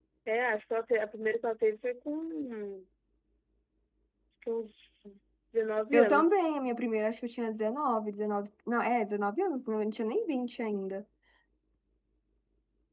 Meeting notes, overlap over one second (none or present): none